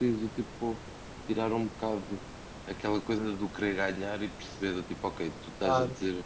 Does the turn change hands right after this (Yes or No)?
No